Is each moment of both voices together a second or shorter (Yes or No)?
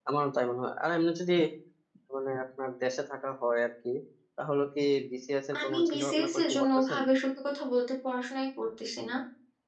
No